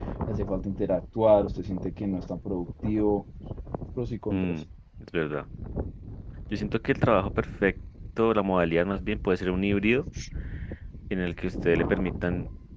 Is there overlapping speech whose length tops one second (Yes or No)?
No